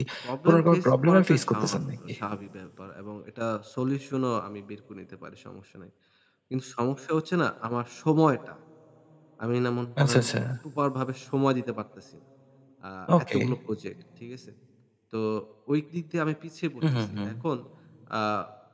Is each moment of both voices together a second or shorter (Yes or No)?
No